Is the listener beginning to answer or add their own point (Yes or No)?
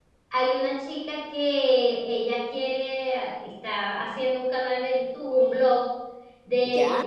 No